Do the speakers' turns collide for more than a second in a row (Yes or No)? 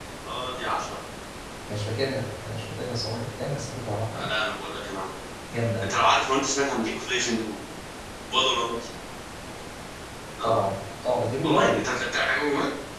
No